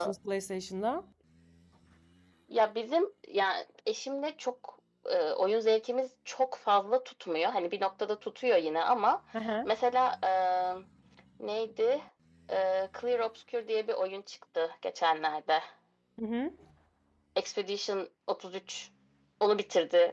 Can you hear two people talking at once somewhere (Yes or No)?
No